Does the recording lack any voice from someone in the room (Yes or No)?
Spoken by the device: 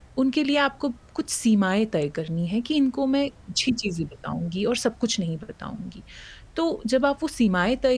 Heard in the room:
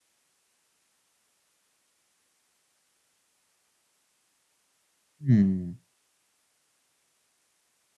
No